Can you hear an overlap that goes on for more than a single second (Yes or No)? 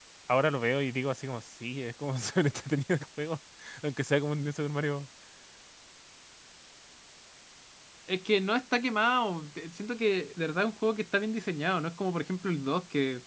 No